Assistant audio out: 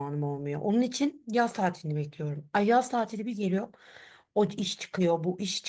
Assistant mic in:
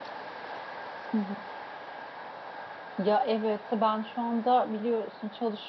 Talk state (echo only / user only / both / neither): user only